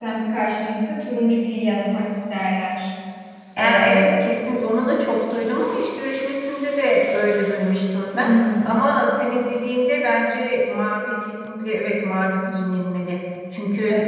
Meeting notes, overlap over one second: none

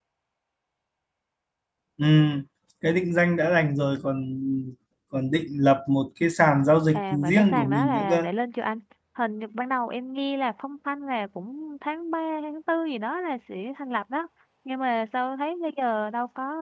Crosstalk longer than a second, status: present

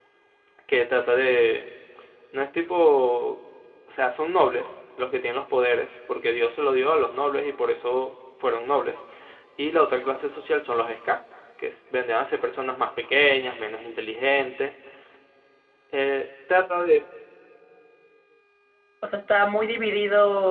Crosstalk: none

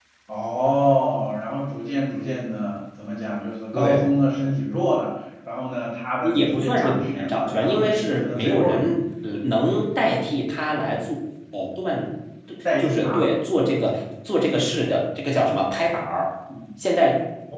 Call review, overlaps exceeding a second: present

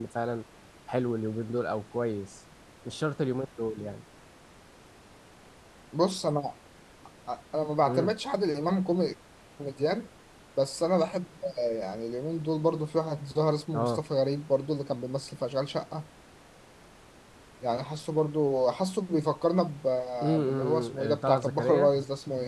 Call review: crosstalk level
present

